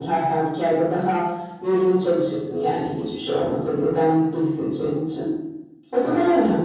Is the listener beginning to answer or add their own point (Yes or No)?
No